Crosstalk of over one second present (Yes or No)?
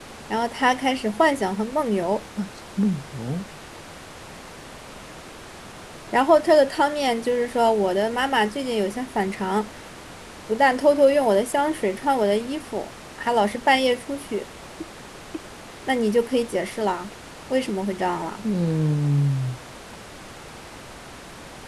No